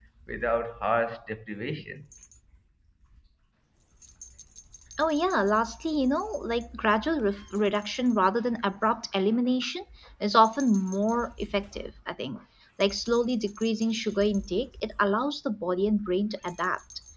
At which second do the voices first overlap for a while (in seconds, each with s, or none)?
none